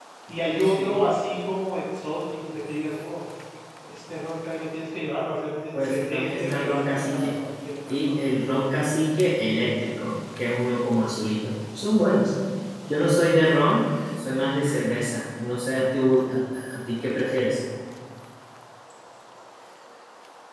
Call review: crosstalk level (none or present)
present